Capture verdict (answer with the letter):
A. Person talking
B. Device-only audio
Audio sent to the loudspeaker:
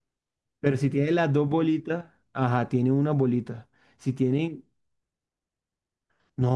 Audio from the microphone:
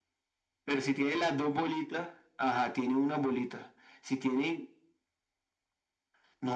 B